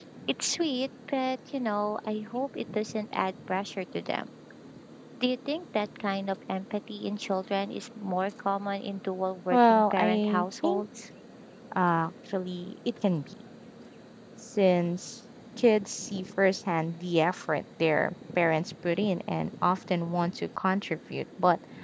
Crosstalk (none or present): present